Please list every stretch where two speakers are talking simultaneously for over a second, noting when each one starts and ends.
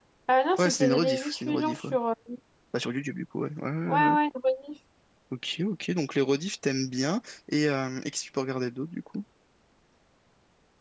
0.6-1.9

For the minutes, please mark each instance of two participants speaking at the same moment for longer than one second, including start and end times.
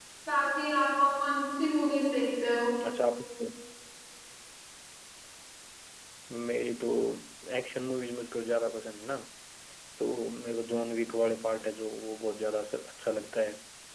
none

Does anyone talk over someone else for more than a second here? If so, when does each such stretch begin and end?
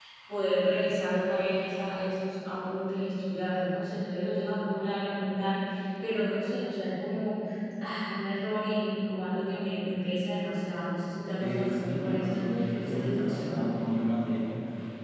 11.4-13.7

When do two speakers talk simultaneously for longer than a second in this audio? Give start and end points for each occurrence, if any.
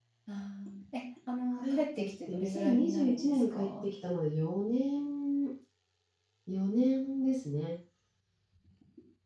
1.6-3.8

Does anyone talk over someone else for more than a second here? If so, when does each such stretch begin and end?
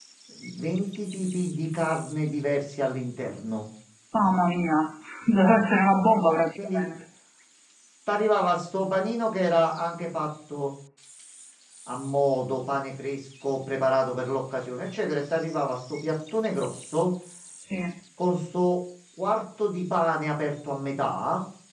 none

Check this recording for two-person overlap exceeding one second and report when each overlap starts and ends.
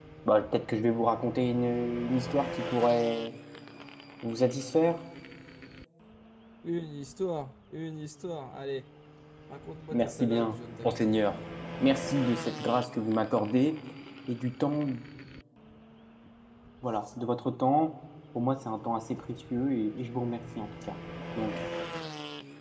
9.9-11.2

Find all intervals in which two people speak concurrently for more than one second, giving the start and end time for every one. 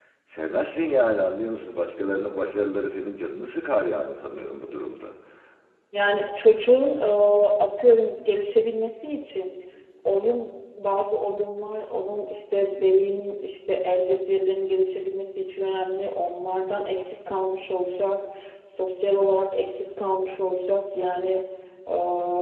none

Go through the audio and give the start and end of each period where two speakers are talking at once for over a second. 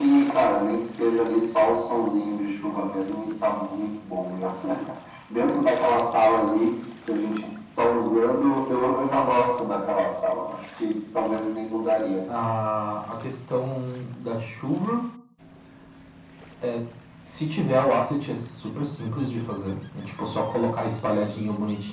none

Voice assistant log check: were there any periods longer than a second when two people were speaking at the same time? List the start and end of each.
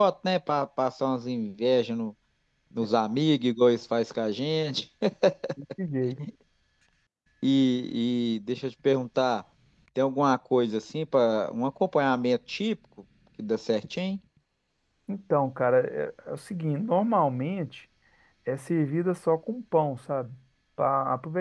none

